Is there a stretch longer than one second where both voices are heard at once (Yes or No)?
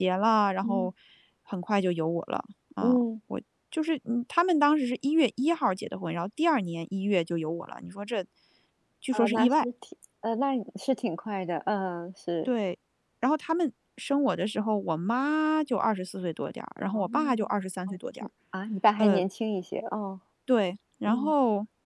No